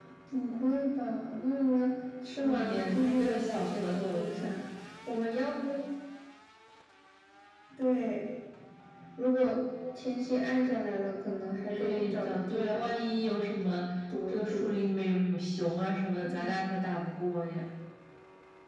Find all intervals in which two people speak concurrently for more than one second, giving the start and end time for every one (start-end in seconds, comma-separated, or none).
2.4-4.5, 11.7-13.0